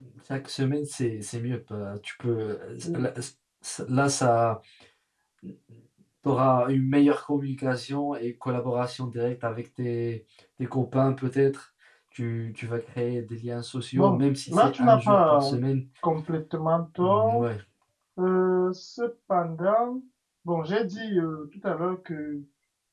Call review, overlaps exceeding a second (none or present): present